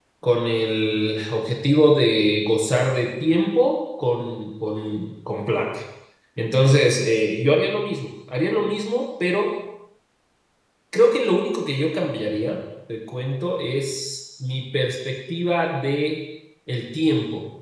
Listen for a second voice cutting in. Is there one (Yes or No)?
No